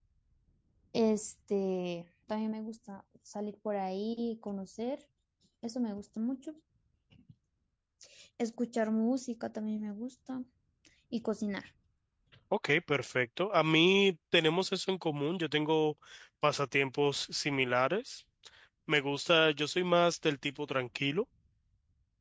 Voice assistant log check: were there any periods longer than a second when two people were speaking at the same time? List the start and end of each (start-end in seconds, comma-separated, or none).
none